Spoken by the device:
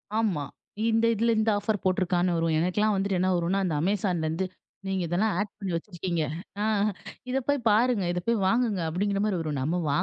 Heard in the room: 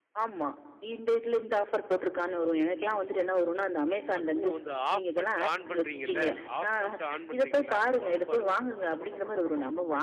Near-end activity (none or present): present